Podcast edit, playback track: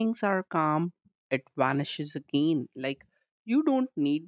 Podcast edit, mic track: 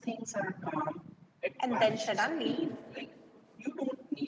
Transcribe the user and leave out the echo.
And then suddenly,

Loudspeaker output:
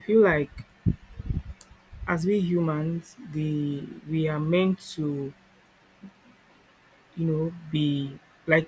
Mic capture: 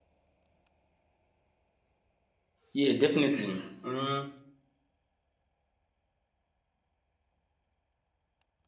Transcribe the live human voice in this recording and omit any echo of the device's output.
yeah, definitely. Mm,

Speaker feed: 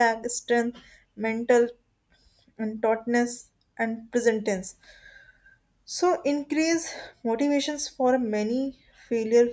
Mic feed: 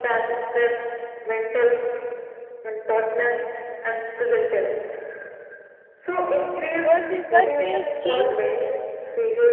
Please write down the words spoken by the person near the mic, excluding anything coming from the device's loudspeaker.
goals is that they change

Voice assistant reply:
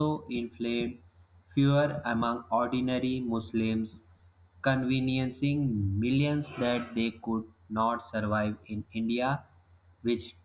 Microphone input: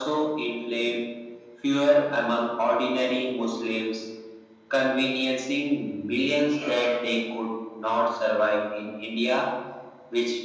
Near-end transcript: none

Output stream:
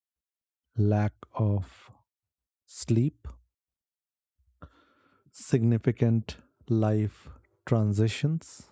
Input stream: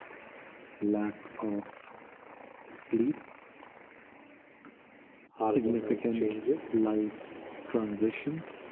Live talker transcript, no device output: hormonal changes,

